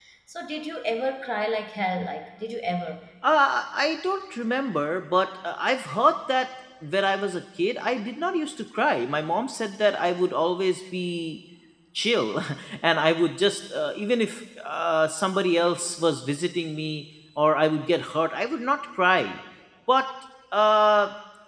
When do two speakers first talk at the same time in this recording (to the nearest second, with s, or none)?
none